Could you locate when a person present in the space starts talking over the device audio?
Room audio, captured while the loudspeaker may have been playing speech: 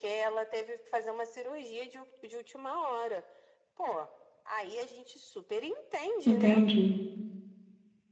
6 s

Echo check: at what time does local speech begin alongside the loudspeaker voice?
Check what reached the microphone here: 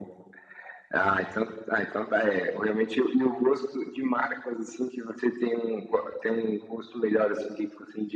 none

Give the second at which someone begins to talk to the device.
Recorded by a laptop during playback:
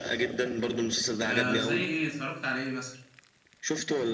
1 s

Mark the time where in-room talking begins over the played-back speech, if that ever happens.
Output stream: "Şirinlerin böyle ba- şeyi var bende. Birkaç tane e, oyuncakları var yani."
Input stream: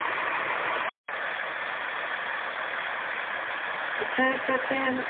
4 s

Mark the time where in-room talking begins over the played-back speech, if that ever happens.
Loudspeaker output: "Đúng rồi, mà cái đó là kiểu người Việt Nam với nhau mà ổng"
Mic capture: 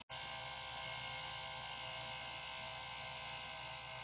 none

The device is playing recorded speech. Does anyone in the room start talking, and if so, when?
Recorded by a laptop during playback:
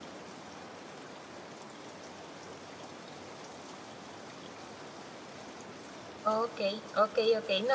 6 s

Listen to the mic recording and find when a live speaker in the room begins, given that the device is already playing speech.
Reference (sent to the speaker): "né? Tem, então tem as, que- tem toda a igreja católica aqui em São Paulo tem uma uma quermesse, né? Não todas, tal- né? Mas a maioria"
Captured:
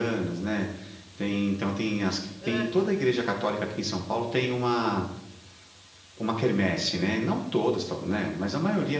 2 s

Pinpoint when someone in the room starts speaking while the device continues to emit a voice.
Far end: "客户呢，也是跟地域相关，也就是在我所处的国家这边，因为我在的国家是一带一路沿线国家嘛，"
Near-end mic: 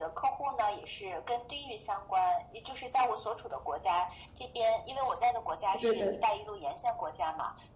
6 s

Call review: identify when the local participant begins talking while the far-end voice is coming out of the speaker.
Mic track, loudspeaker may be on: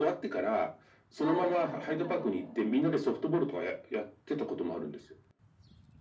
1 s

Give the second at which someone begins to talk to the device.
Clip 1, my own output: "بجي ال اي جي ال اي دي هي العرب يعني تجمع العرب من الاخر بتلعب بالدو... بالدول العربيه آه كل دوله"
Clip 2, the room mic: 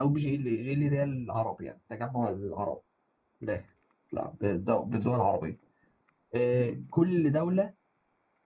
none

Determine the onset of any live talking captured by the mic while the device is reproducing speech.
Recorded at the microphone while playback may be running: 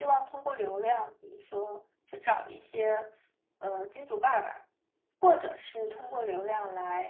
6 s

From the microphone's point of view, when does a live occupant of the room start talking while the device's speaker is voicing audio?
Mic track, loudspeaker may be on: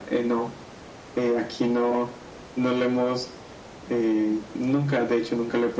none

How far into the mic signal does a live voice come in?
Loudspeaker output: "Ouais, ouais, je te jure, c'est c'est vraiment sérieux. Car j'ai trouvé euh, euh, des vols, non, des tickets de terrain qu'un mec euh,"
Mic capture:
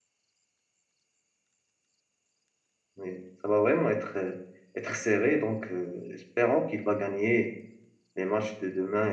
3 s

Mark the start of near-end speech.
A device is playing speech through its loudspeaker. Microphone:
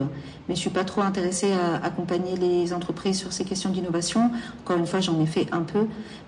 none

